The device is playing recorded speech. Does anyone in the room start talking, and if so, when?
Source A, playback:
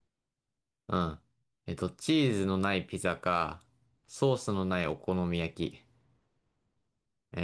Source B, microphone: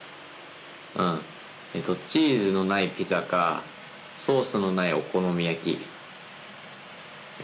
none

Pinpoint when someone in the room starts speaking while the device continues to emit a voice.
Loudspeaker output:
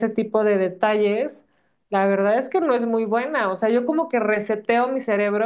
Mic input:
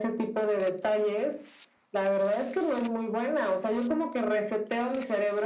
none

